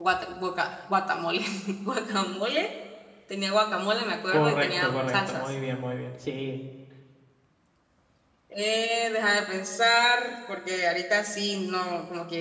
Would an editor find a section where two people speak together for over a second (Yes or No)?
Yes